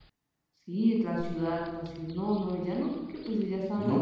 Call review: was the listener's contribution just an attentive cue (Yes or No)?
No